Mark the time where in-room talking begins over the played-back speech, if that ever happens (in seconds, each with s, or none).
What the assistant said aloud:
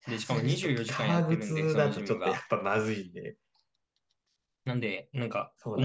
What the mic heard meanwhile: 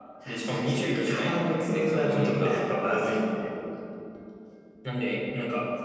2.0 s